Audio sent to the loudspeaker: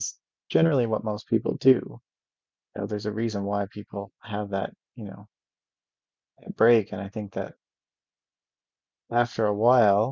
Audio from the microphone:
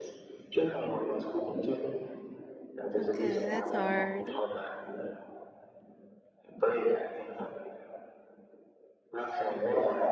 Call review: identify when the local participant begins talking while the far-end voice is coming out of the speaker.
3.0 s

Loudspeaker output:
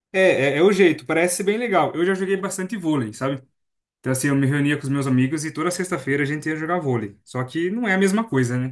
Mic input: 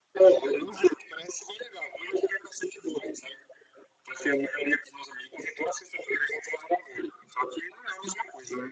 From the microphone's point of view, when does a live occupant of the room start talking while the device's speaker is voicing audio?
none

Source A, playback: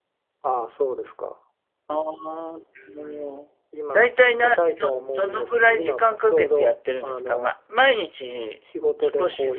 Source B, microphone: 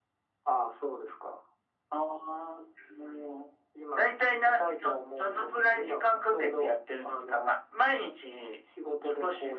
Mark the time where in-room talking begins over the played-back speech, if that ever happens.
none

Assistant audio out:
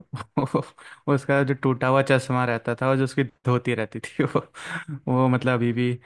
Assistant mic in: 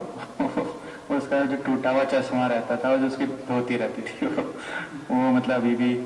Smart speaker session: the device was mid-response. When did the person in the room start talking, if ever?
none

